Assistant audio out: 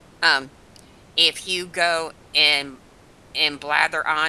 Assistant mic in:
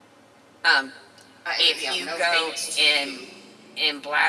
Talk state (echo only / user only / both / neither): both